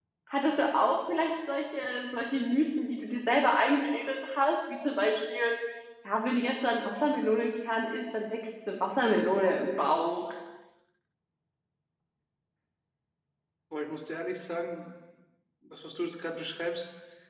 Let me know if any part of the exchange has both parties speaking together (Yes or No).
No